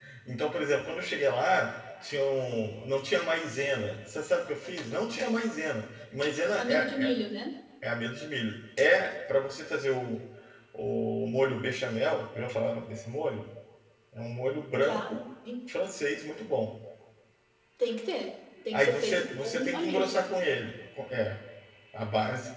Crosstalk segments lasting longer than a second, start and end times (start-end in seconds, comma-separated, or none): 18.7-20.2